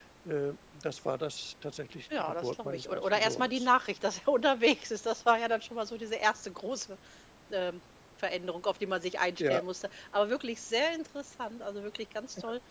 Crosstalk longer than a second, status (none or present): present